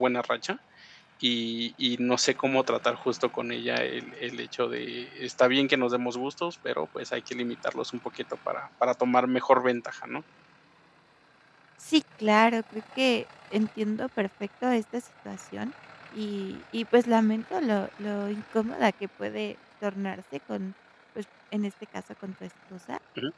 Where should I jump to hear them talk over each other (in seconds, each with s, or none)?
none